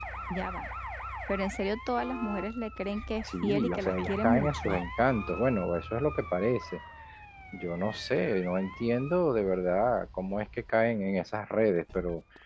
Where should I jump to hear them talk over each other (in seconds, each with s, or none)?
3.2 s